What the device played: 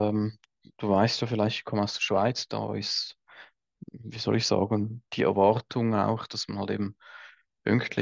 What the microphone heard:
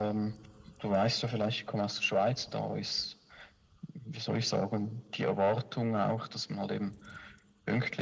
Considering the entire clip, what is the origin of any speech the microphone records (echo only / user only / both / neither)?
echo only